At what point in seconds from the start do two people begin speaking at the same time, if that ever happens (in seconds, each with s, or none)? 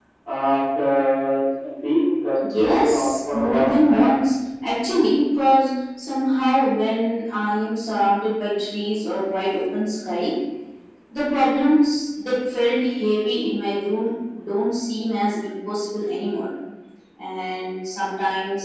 2.4 s